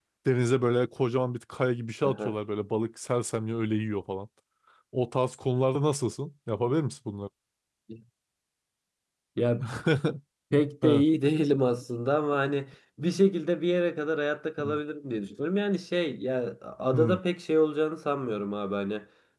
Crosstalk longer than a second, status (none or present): none